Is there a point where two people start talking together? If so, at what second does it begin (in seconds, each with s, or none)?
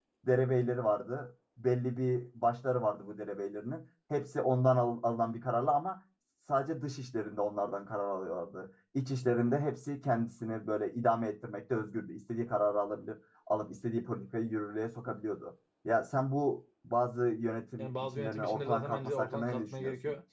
17.8 s